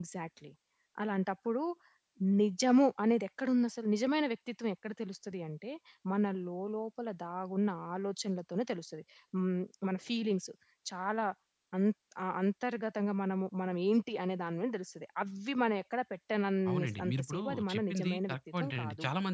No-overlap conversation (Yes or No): No